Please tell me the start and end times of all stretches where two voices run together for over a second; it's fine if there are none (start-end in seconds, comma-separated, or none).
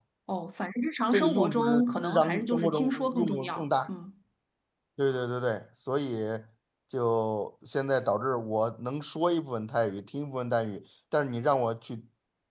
1.1-3.9